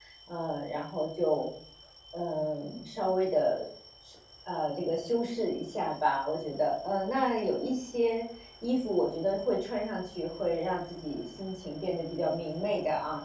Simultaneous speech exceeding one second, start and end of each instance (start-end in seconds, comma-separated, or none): none